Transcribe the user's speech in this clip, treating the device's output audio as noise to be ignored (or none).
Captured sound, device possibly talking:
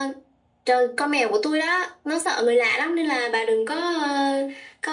none